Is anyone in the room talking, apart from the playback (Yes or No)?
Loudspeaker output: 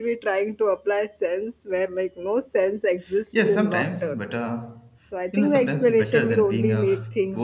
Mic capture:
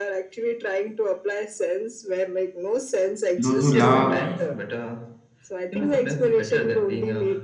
Yes